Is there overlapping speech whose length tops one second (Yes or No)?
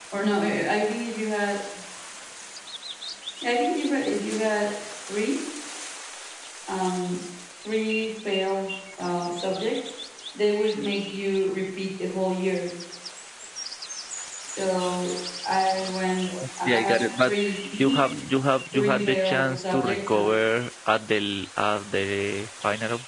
Yes